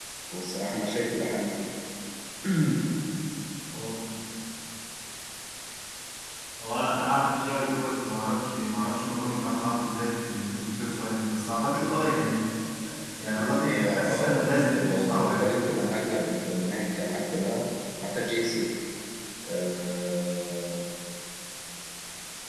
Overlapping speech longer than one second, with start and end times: 13.3-15.6

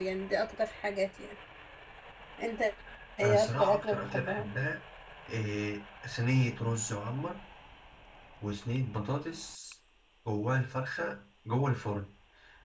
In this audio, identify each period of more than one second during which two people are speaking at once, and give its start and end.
3.2-4.5

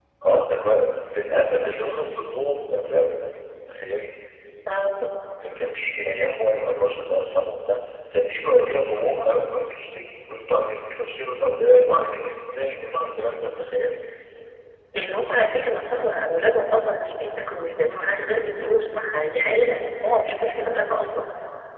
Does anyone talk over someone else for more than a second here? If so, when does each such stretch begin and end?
none

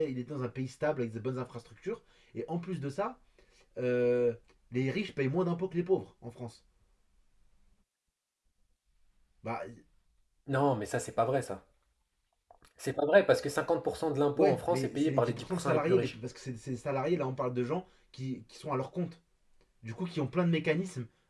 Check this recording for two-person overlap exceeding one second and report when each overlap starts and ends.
14.4-16.1

